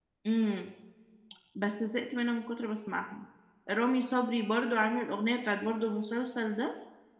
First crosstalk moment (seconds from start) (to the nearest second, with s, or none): none